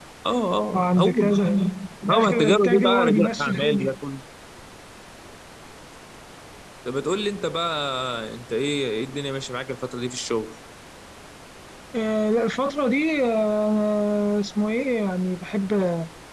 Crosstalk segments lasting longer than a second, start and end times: 2.1-3.9

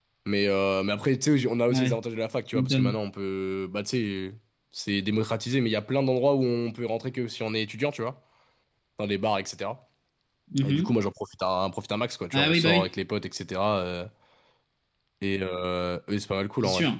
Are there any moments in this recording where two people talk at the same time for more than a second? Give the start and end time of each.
none

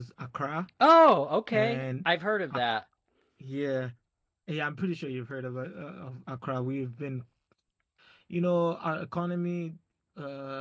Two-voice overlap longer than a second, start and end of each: none

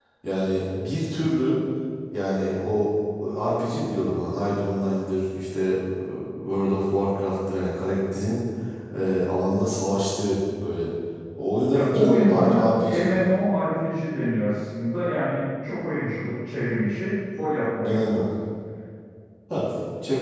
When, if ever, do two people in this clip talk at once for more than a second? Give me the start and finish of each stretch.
11.7-13.2

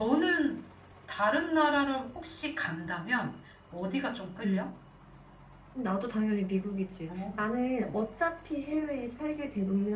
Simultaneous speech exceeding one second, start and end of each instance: none

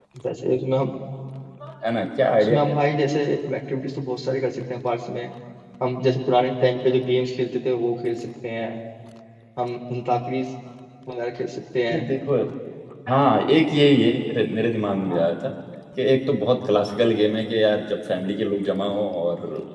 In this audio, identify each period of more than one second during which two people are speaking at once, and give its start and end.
none

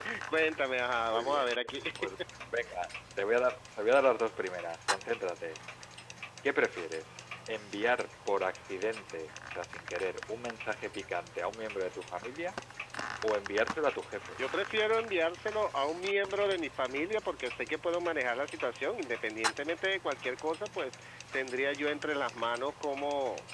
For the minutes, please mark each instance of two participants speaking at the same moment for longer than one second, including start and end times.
none

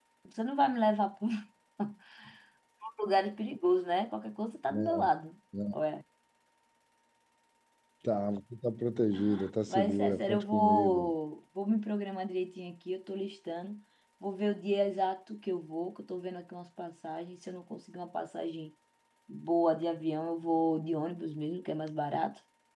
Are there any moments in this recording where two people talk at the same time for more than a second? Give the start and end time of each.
9.7-11.1

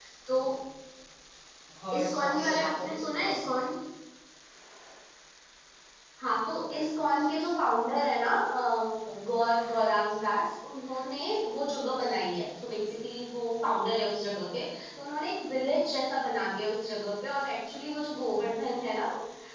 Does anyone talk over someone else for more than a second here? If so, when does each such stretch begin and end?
1.9-3.4

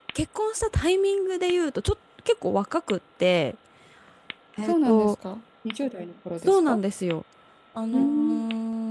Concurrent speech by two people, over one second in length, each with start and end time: none

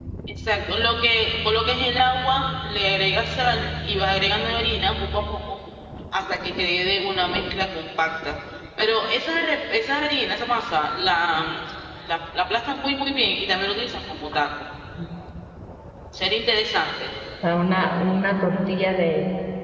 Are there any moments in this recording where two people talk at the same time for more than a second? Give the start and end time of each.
none

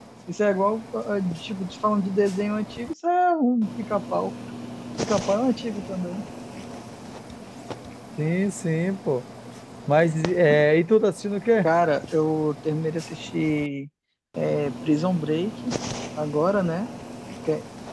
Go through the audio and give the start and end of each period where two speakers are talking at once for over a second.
none

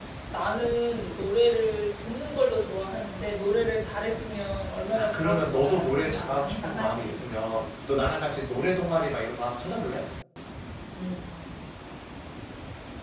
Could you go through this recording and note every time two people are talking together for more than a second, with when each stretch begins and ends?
4.9-7.3

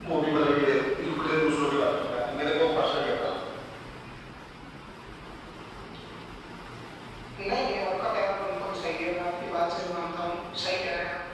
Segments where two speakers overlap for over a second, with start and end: none

